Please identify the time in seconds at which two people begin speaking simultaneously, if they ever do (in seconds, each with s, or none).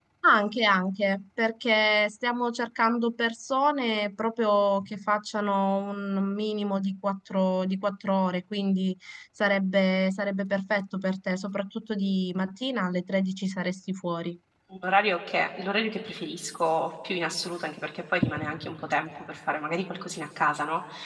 none